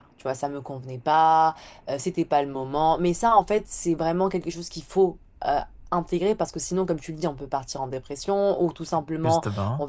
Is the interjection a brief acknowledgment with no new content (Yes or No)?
Yes